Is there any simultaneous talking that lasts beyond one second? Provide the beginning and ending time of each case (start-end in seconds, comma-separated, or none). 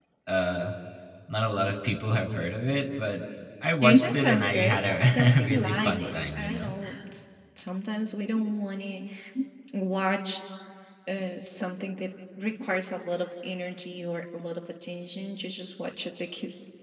3.8-6.7